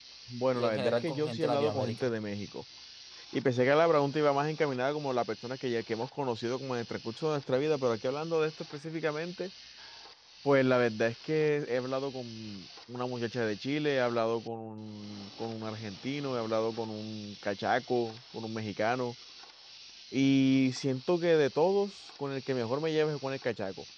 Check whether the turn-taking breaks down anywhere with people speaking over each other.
Yes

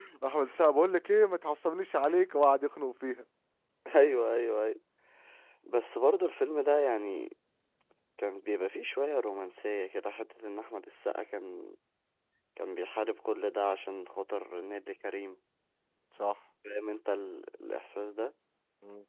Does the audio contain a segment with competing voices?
No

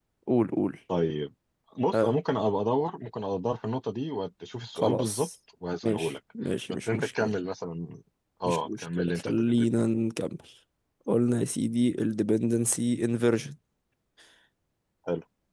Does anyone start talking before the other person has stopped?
Yes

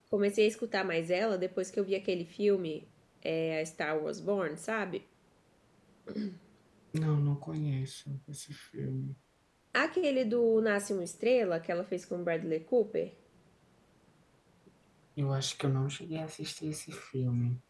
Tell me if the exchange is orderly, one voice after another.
Yes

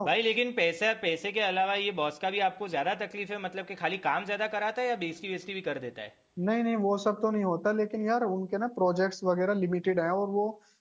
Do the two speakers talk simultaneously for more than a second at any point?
No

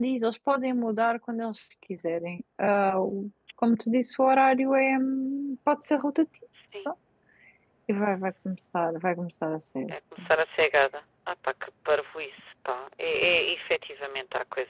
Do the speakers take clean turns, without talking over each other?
Yes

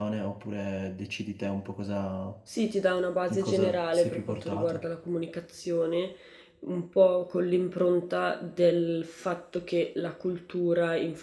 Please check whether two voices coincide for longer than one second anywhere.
Yes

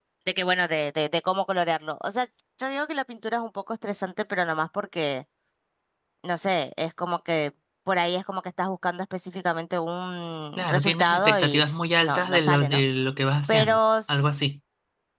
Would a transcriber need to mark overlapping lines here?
Yes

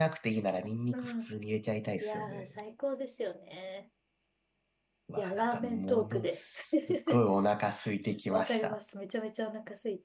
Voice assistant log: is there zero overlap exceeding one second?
No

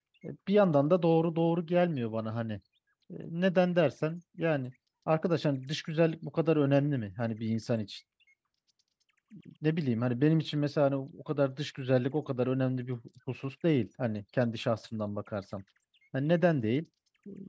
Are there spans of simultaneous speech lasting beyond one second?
No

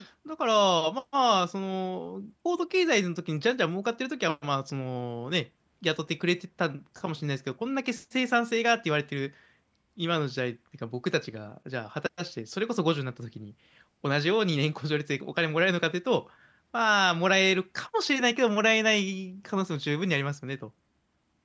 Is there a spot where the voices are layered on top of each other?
No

